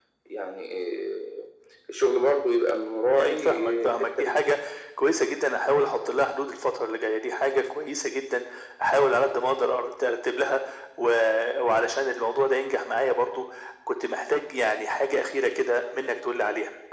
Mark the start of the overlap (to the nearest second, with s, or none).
3 s